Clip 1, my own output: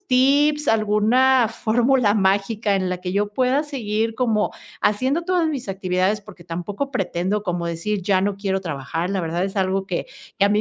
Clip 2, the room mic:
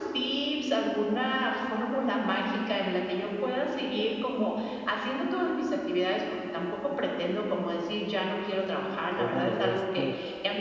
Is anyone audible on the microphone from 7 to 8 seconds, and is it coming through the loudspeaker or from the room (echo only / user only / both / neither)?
echo only